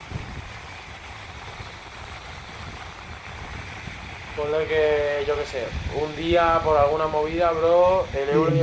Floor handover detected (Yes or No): No